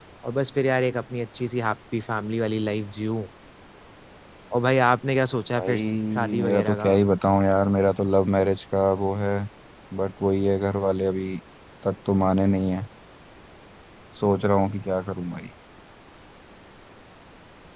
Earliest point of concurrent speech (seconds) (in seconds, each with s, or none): 5.6 s